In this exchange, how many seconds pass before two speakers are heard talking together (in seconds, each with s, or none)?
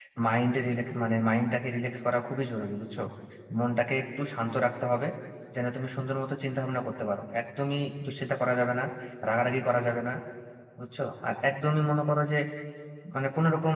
none